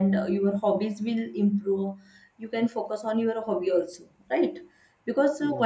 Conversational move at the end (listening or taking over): listening